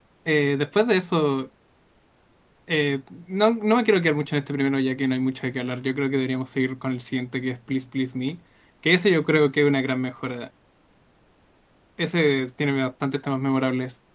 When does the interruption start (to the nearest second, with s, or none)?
none